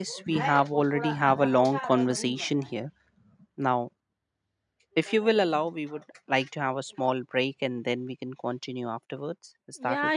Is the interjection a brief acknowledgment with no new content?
No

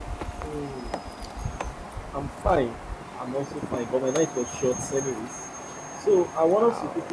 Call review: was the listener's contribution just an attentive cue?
Yes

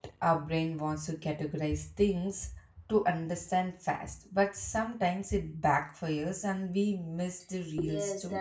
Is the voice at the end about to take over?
Yes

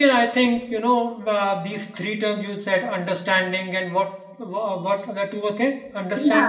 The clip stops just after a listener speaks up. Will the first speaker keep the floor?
No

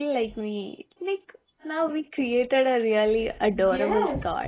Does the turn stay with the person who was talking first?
No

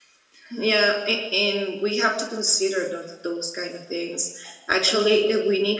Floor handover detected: No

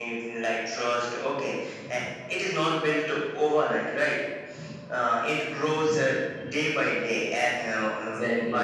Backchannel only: Yes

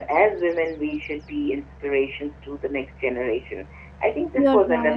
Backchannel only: Yes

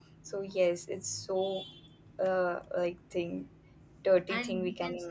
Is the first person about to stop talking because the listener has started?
Yes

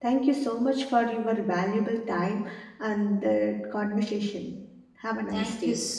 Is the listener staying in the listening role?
No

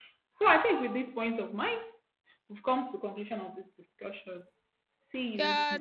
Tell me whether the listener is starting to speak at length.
Yes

